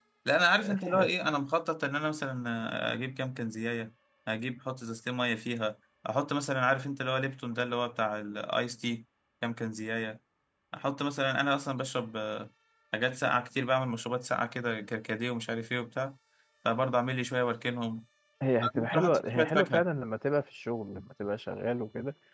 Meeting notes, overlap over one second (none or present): present